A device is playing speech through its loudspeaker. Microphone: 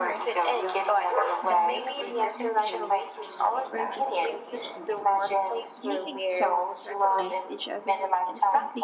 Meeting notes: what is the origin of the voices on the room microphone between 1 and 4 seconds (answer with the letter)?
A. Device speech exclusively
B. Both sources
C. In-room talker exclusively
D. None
B